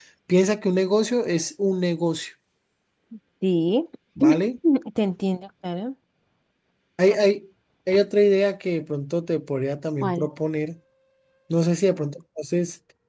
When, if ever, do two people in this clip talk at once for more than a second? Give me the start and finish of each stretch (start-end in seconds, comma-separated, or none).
none